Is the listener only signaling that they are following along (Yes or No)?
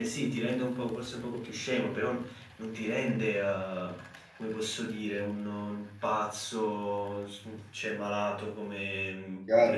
No